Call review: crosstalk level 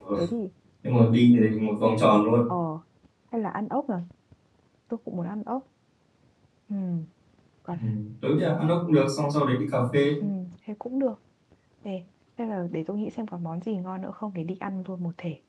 none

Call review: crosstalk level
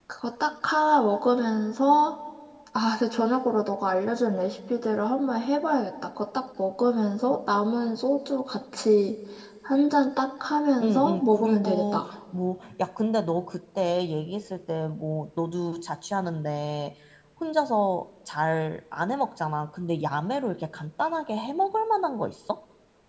present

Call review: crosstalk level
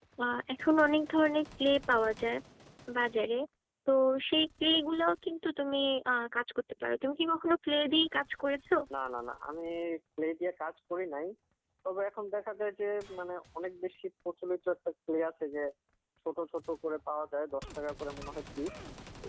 none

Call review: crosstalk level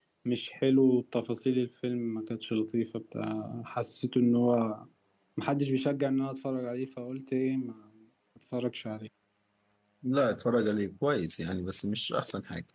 none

